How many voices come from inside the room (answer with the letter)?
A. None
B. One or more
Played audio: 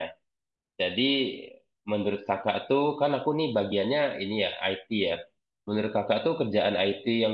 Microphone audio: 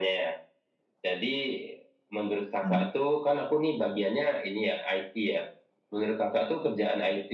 B